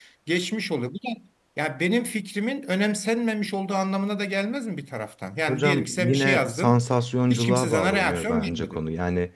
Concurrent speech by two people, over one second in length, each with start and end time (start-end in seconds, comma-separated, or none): 5.5-6.8, 7.3-8.8